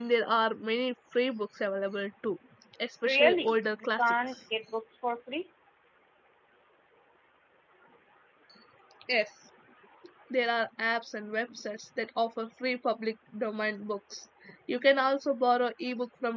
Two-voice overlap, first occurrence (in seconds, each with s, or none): 3.0 s